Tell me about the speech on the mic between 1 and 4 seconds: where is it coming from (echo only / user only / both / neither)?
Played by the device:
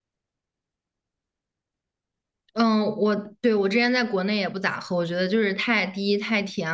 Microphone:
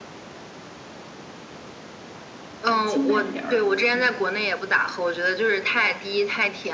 both